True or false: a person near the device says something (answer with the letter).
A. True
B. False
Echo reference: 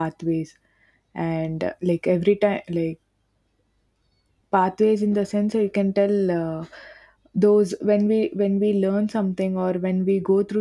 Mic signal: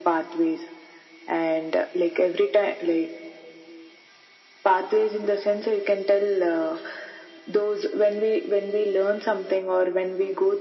B